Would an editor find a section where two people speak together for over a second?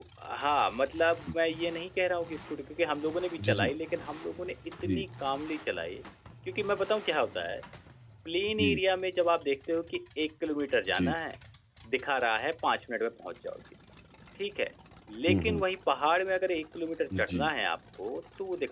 No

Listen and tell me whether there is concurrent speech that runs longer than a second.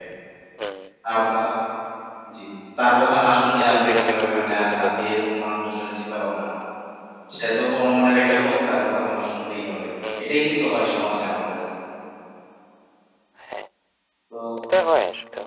Yes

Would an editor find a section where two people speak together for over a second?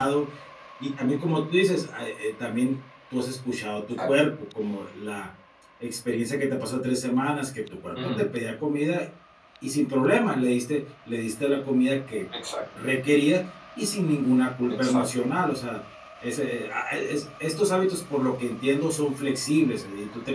No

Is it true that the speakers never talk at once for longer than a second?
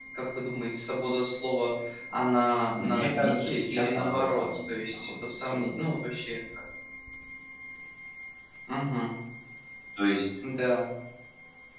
No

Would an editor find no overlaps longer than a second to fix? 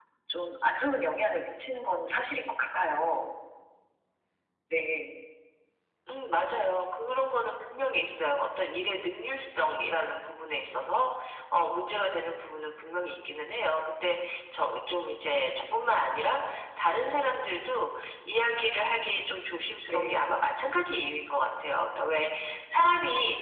Yes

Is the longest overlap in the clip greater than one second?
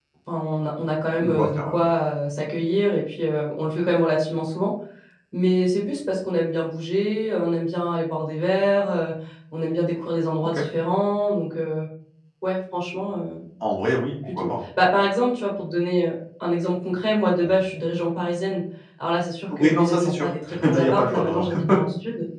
Yes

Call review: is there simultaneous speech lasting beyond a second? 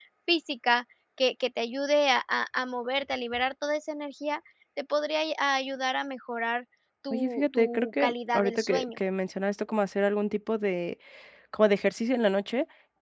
Yes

